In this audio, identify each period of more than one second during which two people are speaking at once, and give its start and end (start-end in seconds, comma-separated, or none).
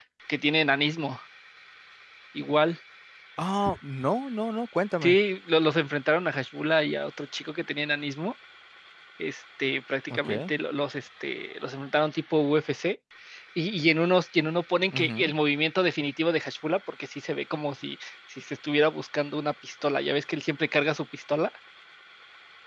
none